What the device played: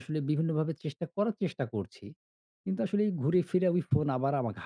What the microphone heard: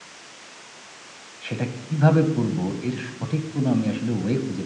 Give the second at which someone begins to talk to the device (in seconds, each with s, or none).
1.5 s